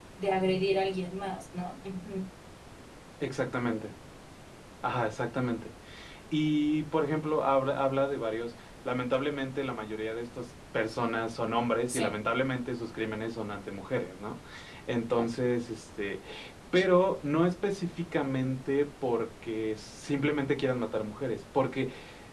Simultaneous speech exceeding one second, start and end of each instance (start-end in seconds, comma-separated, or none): none